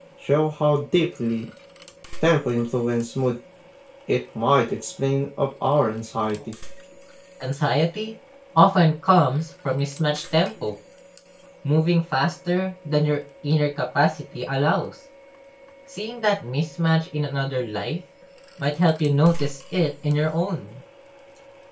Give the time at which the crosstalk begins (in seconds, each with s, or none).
none